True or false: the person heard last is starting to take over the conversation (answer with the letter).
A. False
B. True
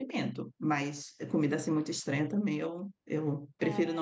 A